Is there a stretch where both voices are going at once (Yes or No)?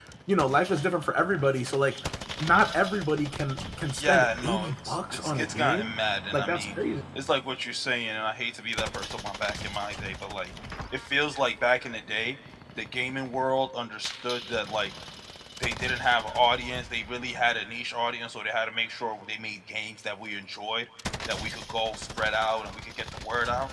Yes